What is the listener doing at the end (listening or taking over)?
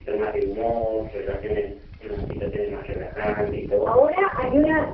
taking over